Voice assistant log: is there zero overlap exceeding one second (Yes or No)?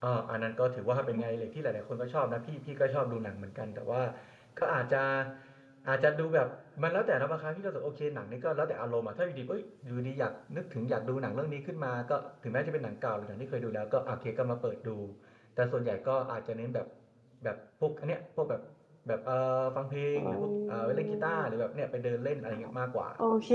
No